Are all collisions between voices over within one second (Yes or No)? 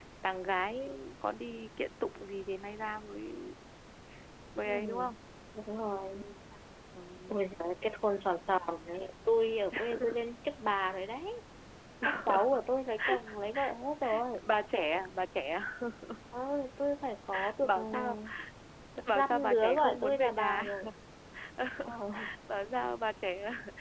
No